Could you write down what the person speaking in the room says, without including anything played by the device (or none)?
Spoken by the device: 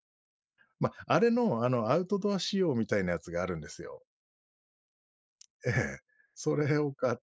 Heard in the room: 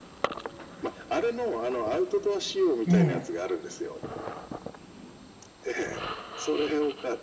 ええ。